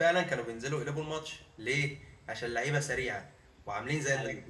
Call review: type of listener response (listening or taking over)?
listening